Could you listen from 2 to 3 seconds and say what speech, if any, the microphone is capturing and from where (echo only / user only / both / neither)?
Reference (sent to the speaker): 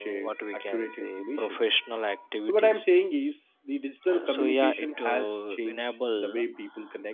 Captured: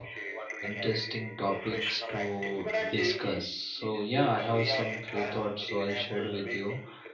both